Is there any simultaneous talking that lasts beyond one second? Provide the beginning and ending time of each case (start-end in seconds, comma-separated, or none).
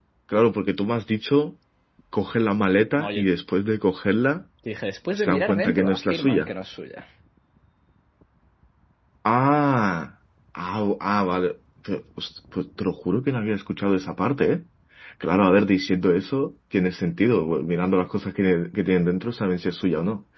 5.1-6.5